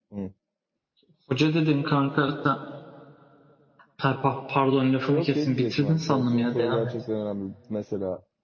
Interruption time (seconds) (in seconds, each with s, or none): 5.1 s